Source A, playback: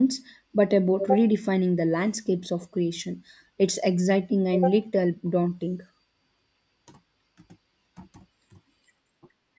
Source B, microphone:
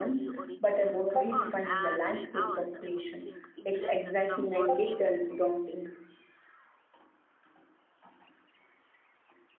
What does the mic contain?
both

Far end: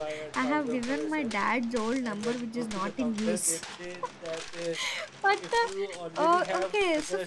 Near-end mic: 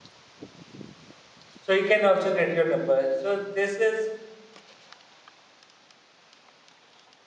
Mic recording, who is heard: user only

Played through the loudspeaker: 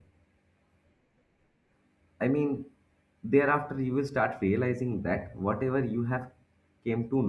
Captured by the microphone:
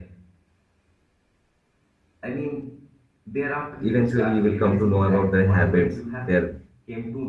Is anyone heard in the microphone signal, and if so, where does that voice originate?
both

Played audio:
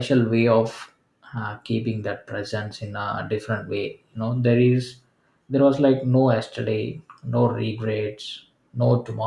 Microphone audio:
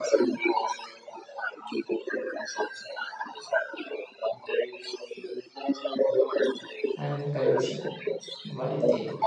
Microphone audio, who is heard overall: both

